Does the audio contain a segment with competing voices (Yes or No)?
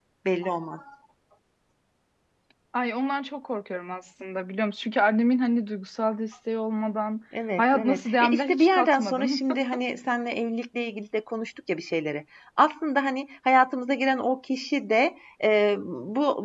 Yes